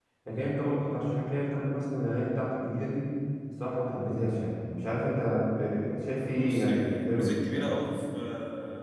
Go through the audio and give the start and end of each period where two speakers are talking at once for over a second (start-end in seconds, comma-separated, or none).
6.3-7.7